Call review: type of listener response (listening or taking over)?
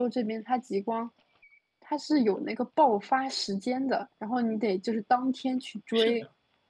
taking over